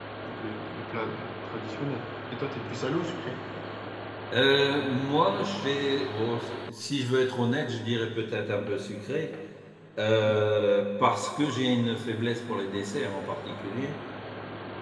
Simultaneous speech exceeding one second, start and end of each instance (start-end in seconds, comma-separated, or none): none